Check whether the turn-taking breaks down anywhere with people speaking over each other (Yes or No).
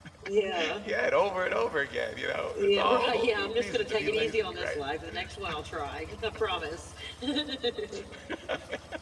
Yes